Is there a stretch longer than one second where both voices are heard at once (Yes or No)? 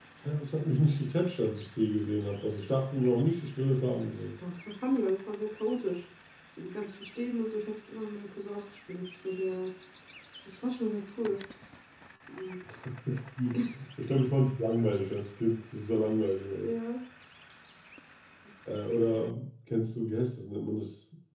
No